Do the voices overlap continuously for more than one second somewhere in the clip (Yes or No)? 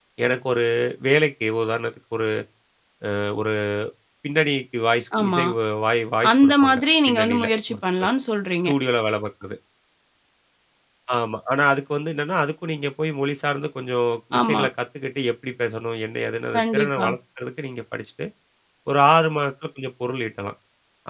Yes